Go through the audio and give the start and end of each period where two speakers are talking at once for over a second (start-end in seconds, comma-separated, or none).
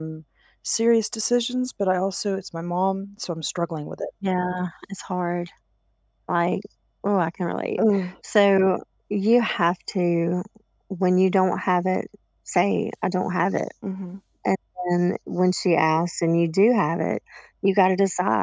none